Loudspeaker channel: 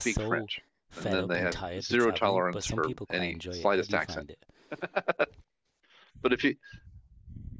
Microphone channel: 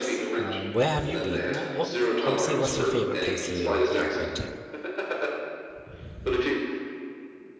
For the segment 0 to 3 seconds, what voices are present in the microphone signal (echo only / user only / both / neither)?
both